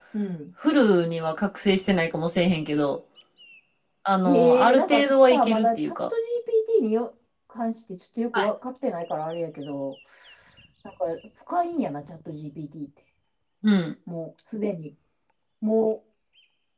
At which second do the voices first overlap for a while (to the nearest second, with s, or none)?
4 s